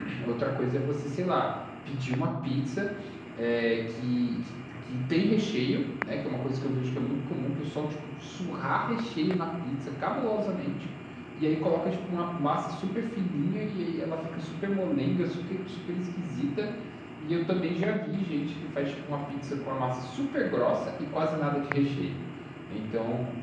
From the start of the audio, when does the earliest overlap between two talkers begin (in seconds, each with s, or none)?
none